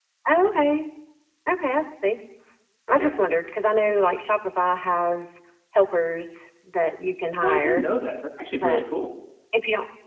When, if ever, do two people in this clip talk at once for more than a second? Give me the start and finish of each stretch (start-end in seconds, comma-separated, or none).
none